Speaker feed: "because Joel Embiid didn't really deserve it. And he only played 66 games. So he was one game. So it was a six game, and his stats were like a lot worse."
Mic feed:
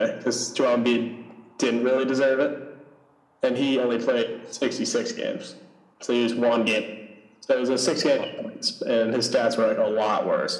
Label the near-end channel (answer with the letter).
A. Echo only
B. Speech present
A